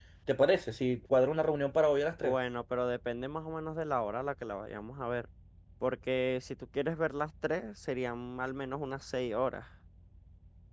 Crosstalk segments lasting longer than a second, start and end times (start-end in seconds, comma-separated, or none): none